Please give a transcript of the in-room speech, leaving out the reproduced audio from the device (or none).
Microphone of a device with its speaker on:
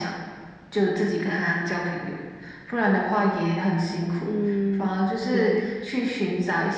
嗯，对，